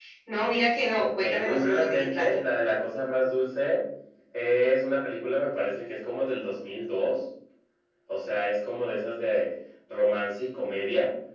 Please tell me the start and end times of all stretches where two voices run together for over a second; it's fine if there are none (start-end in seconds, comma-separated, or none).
1.0-2.2